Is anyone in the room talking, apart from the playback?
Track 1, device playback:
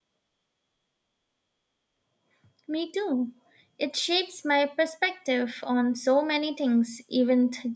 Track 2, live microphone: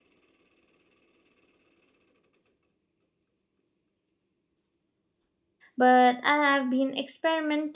Yes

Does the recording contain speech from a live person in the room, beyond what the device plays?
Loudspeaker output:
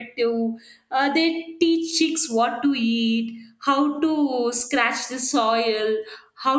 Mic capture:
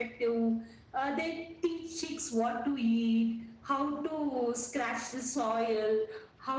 No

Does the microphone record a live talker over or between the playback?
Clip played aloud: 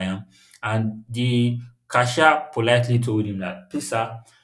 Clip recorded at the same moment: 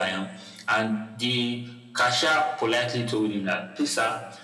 No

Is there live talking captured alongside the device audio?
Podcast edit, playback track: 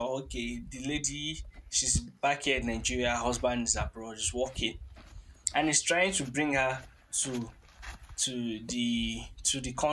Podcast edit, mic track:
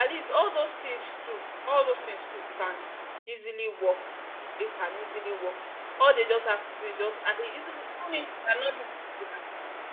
Yes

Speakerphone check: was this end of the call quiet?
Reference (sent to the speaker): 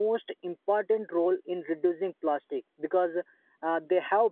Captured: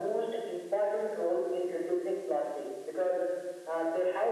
Yes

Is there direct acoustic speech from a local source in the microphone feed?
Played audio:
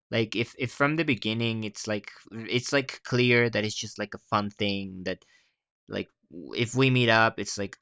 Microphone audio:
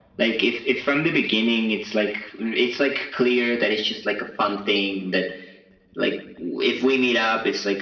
No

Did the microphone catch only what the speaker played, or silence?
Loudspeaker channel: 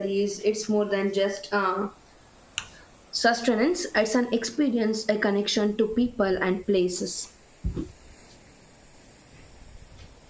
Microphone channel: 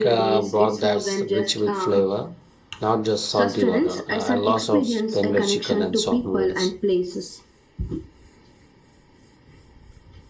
No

